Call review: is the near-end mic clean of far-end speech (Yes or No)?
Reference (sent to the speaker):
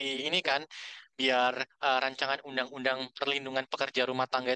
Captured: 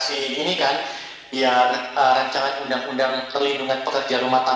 No